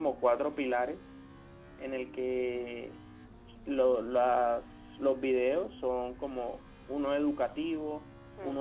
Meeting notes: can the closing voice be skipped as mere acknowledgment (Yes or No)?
Yes